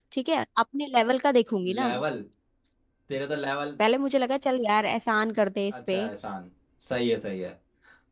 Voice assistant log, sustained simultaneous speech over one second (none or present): none